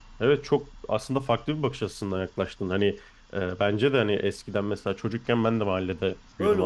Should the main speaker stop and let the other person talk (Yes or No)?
Yes